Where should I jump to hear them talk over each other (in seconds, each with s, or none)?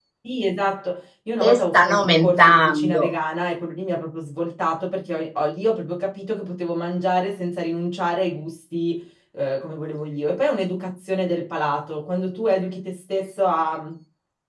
1.4 s